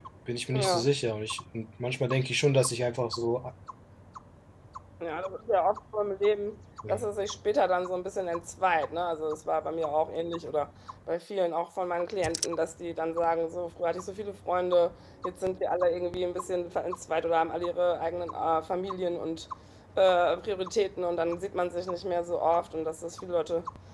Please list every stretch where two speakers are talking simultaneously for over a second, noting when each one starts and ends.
none

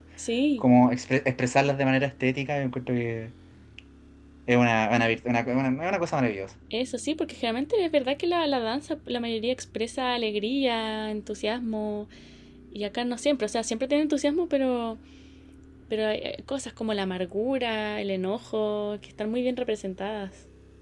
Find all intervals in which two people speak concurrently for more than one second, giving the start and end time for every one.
none

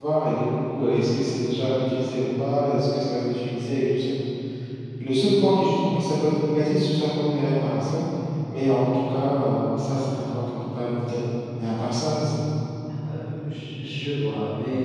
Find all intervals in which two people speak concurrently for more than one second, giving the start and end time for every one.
none

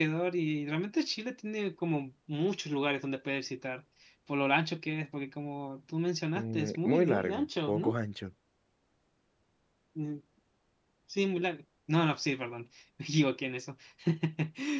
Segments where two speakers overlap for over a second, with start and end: 6.4-8.0

